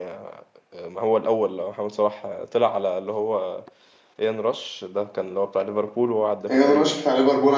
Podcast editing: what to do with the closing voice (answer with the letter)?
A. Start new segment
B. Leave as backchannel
A